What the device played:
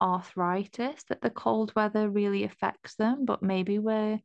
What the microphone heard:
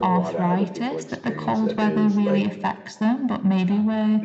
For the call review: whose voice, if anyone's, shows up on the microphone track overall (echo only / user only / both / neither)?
both